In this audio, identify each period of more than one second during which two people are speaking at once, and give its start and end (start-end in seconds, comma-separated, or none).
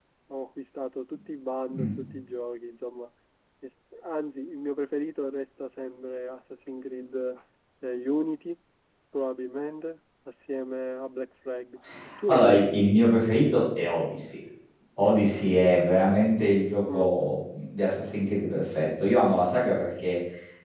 none